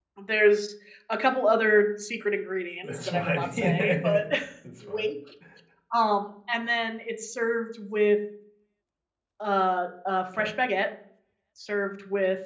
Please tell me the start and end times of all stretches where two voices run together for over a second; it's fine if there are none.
2.8-4.2

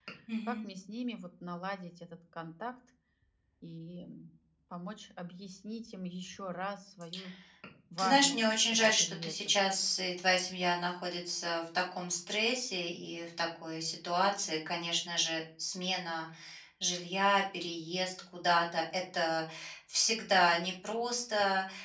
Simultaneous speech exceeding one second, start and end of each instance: 8.0-9.5

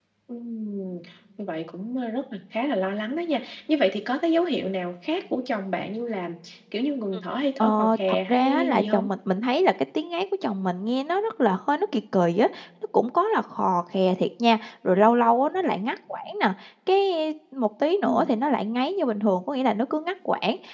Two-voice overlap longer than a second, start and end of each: 7.6-9.1

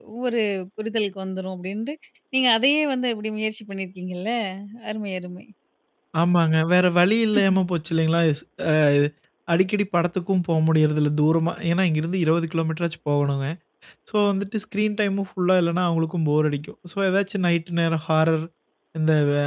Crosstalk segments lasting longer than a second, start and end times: none

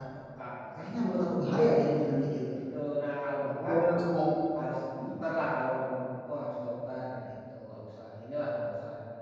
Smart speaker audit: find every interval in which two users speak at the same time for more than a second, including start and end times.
none

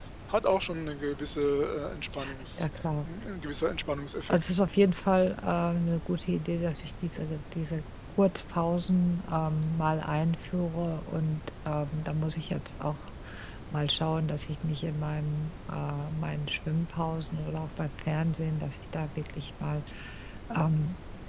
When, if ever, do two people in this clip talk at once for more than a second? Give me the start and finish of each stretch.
none

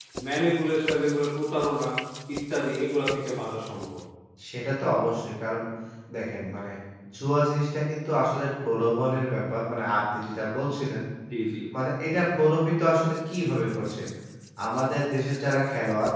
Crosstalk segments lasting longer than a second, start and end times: none

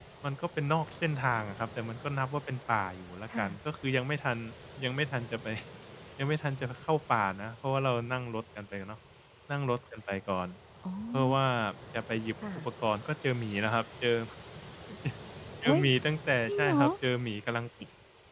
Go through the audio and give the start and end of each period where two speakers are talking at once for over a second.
none

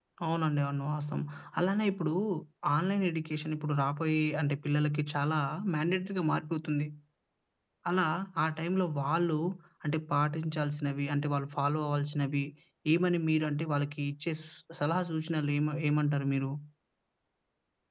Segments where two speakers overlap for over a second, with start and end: none

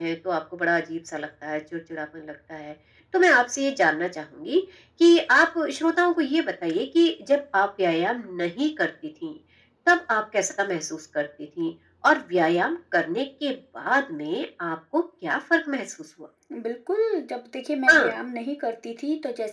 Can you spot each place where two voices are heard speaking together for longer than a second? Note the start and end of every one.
none

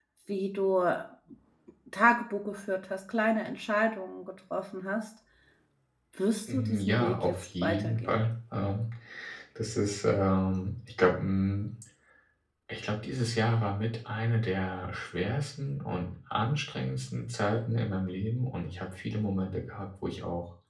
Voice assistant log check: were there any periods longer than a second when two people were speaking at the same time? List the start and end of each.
6.5-8.2

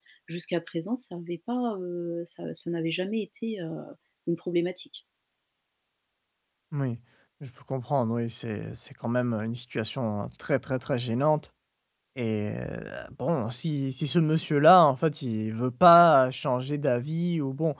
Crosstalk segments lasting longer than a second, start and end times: none

